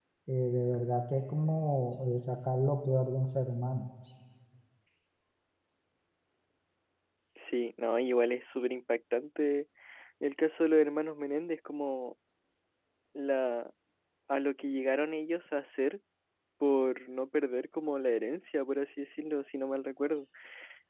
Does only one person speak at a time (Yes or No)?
Yes